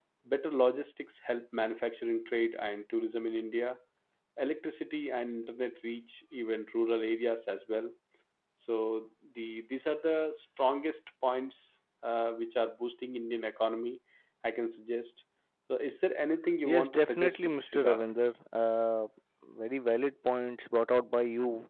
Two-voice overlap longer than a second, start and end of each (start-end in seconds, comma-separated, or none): 16.6-18.0